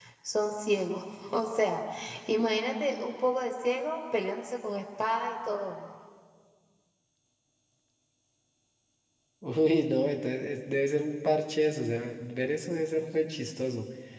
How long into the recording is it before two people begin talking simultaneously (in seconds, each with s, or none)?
none